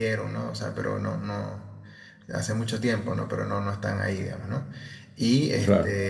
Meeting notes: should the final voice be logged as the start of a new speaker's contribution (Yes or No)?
No